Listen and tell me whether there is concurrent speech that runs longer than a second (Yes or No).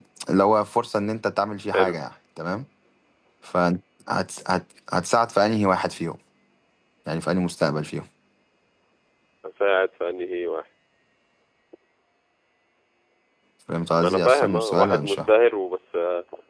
Yes